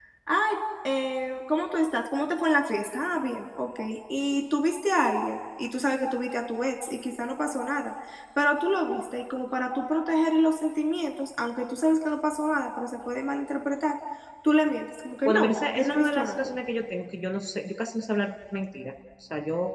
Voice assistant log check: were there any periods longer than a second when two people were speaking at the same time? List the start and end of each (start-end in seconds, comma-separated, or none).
15.2-16.5